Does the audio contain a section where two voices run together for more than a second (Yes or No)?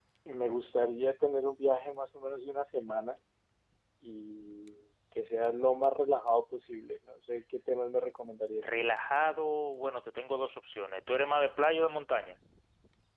No